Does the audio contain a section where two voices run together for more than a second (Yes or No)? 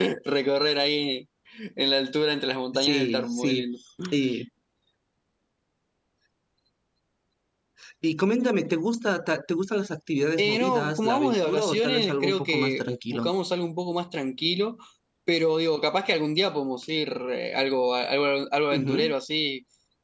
Yes